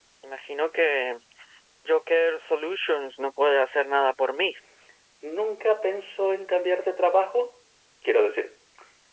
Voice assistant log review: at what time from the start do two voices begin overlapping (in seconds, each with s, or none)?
none